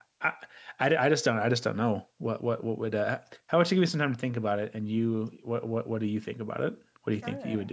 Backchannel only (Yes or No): No